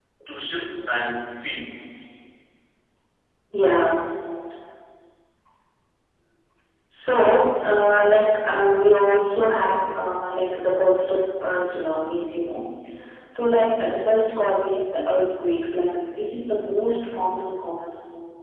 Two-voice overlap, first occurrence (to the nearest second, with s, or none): none